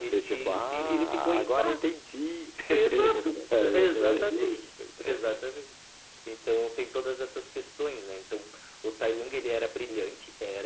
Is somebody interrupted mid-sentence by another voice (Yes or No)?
Yes